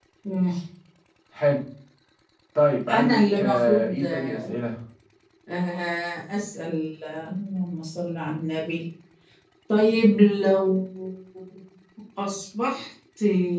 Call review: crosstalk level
present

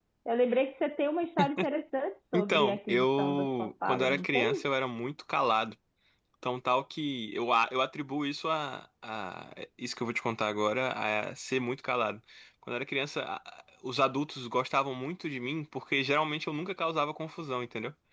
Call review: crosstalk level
present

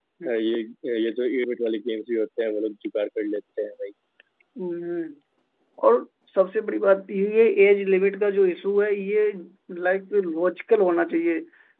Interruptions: none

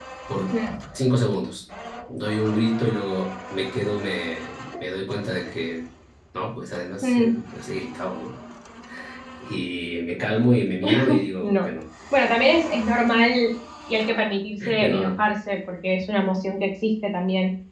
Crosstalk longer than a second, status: none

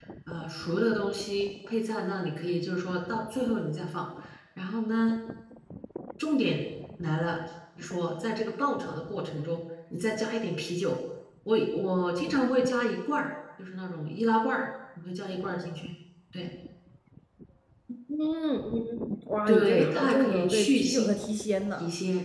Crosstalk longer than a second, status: present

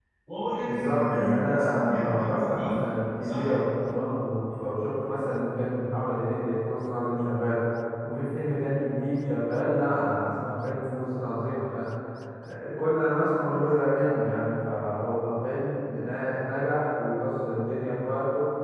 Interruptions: present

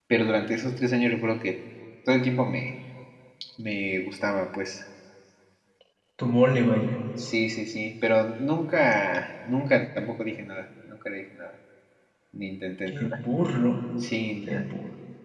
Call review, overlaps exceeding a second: none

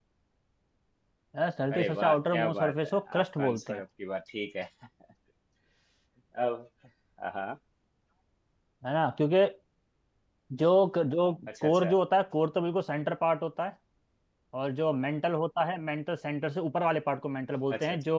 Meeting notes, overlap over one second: present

